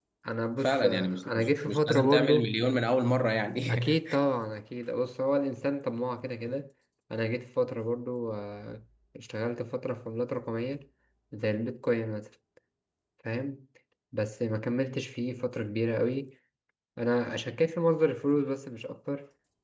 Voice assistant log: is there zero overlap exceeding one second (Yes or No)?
No